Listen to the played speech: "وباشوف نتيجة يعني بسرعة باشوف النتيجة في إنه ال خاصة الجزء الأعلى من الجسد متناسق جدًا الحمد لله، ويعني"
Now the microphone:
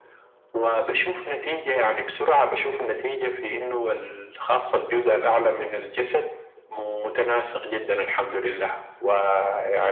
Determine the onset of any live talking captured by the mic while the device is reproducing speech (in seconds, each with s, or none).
none